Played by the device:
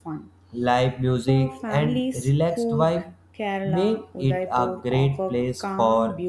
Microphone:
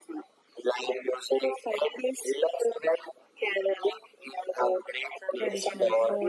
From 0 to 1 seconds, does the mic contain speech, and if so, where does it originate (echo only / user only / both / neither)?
echo only